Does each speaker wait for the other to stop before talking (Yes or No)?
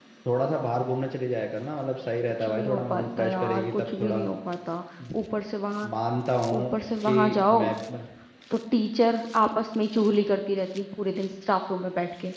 No